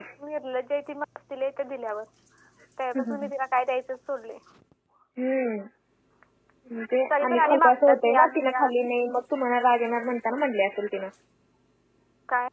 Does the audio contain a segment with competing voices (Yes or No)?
Yes